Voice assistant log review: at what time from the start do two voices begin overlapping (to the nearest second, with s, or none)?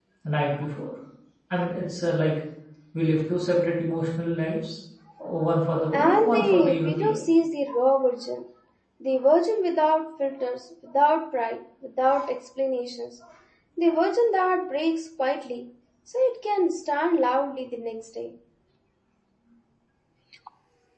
6 s